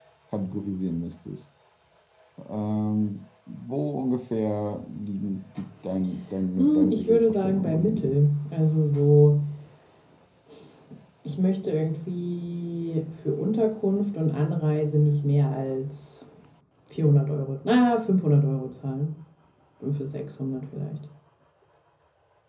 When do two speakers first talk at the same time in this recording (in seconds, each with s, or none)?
6.6 s